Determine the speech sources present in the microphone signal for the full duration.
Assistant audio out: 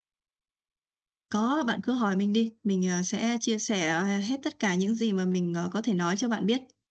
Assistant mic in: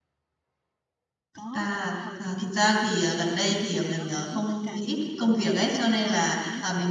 both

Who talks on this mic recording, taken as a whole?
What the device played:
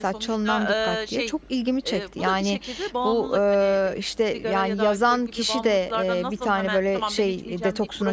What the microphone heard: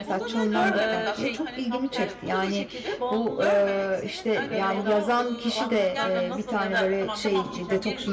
both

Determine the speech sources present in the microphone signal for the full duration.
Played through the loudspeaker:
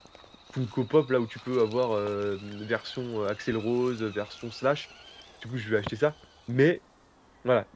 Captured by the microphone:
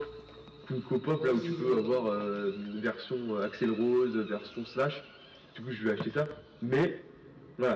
both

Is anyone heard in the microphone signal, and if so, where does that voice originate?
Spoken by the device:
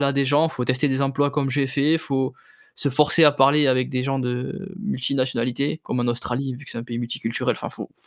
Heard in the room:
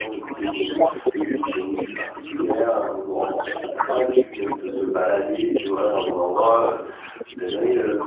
both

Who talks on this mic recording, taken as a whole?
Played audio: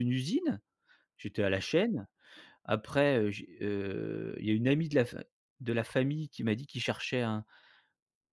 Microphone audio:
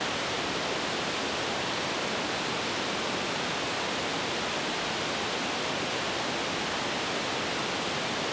neither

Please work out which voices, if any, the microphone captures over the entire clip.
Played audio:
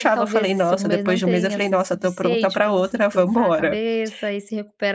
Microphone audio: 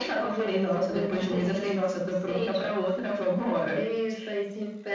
echo only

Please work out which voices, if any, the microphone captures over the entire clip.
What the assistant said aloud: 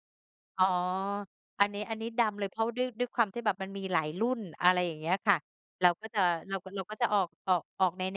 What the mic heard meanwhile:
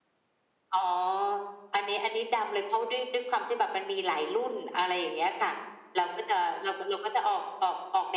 echo only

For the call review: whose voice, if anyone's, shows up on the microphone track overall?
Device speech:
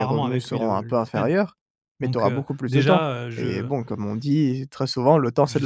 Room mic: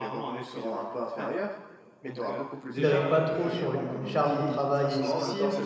both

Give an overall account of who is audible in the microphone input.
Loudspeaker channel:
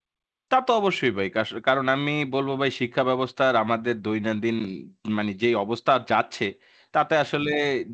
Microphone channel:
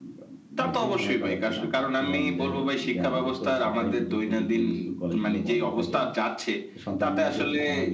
both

